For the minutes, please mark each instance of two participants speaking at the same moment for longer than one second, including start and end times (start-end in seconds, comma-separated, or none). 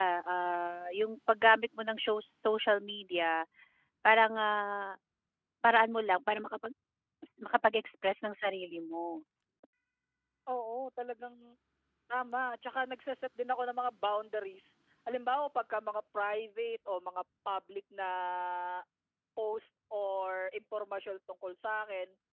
none